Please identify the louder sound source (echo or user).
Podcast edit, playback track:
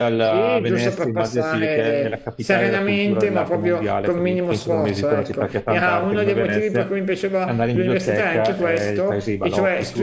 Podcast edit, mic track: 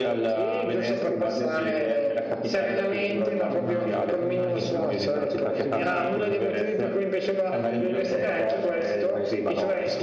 echo